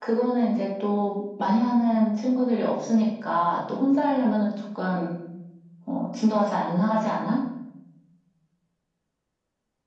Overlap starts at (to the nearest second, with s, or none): none